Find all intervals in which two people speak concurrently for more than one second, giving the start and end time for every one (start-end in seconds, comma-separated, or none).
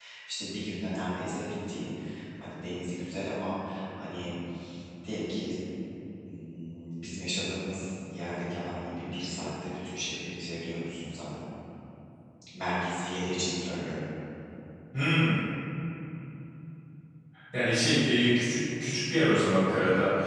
none